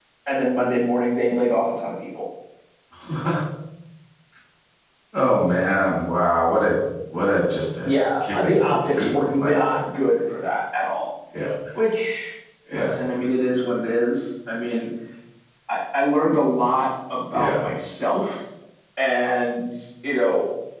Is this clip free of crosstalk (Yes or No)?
No